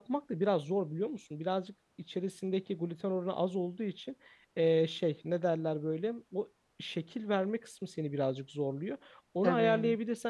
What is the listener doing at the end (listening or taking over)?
listening